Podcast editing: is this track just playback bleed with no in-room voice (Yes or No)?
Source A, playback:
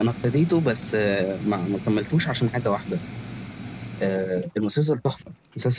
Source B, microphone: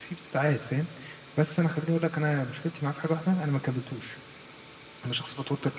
No